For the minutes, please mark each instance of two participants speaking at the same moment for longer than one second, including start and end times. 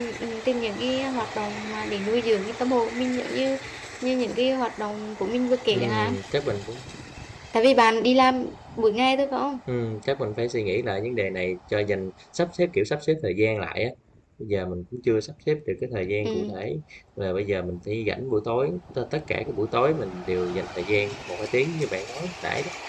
none

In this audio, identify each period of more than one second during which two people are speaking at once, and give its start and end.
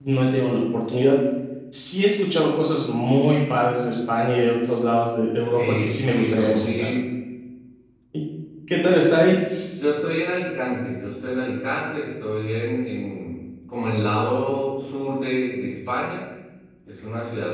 5.5-6.9

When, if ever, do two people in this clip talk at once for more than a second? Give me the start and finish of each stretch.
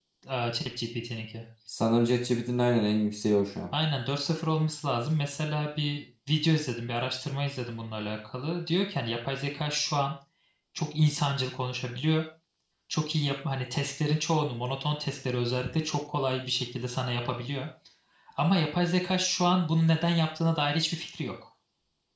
none

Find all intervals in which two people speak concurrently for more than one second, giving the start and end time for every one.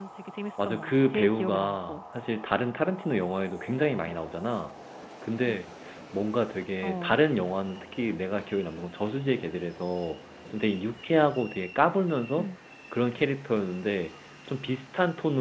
0.6-2.0

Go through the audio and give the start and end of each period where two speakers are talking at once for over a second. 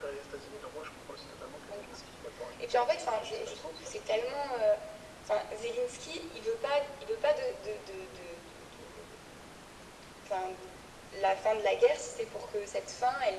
2.6-4.4

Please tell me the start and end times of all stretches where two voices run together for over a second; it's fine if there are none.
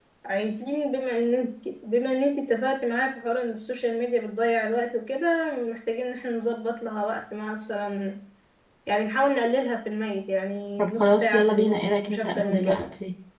10.8-12.8

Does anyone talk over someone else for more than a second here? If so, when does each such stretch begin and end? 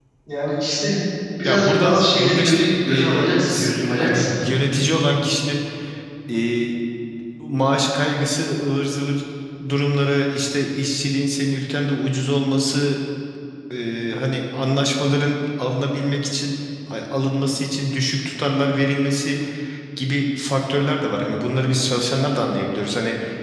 1.4-4.2

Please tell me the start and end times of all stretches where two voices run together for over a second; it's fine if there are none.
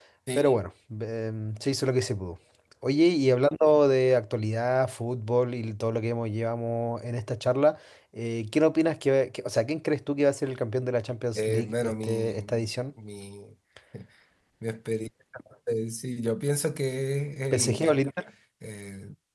11.4-12.6

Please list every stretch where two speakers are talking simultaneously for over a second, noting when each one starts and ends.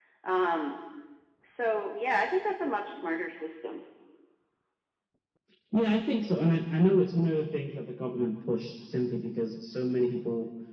none

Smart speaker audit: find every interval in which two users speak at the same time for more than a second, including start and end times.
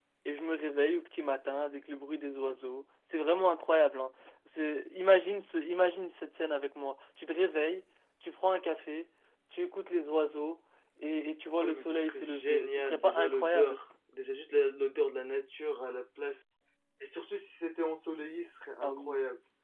11.6-13.8

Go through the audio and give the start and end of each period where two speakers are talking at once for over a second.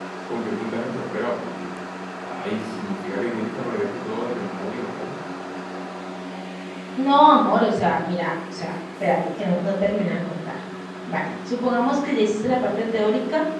none

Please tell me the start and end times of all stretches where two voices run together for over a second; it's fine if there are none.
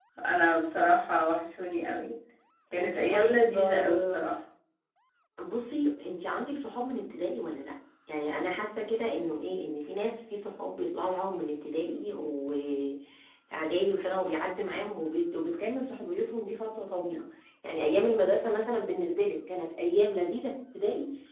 2.8-4.2

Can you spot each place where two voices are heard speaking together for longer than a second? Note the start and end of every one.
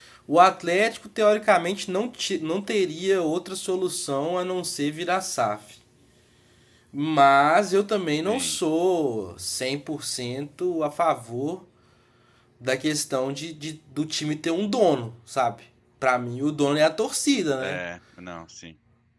none

